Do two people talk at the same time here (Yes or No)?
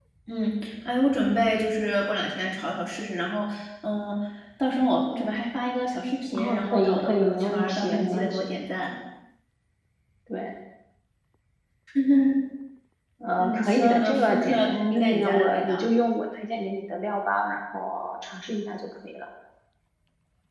Yes